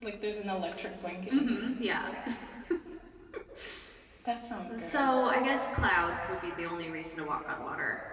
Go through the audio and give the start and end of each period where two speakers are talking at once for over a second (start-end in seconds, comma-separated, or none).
none